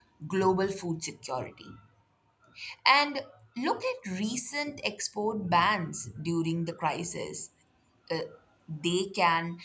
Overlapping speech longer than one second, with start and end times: none

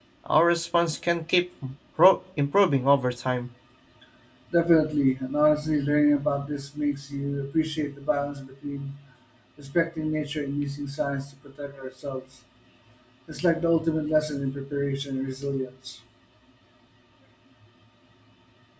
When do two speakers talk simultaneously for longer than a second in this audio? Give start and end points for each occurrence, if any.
none

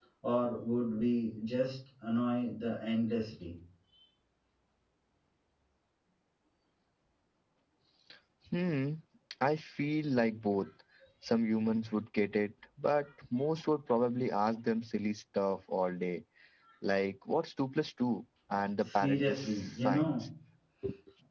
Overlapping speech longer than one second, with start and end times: 18.8-20.1

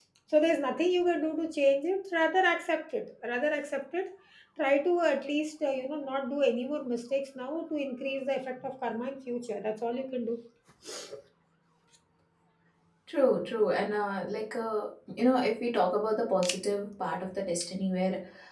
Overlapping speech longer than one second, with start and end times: none

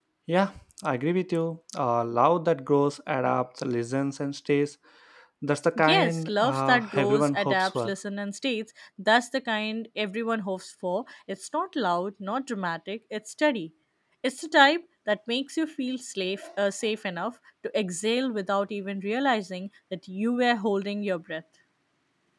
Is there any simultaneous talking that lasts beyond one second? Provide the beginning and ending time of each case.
5.8-7.9

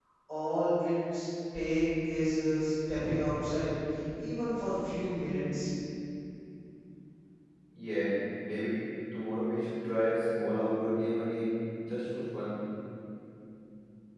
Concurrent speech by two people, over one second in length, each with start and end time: none

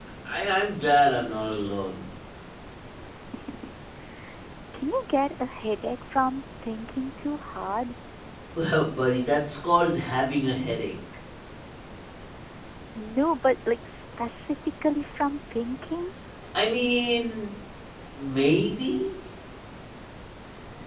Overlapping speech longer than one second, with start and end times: none

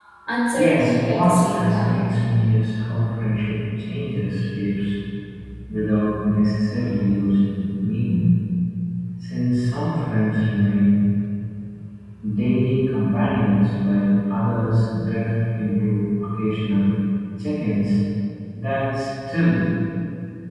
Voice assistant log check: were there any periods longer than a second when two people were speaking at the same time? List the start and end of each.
0.5-2.1

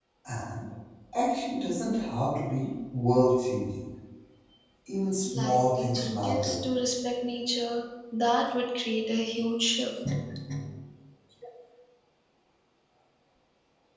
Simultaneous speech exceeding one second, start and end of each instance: 5.3-6.6

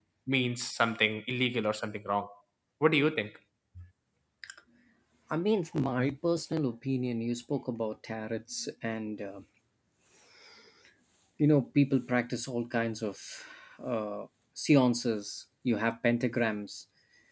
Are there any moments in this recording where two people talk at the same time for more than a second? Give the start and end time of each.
none

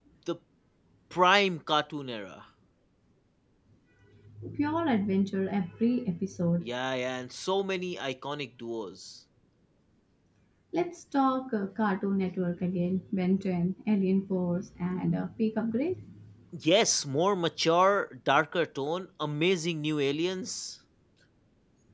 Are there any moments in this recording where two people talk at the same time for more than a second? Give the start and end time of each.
none

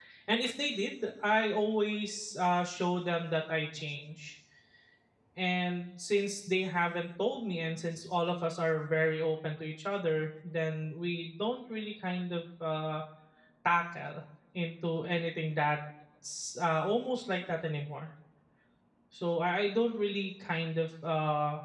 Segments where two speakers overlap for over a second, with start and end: none

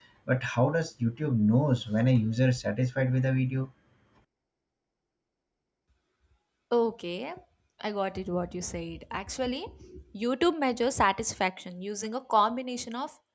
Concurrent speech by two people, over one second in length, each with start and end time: none

